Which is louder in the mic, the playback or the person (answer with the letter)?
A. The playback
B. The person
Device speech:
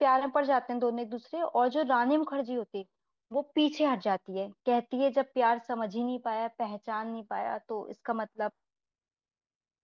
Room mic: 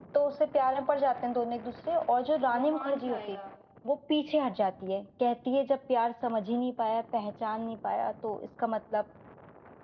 A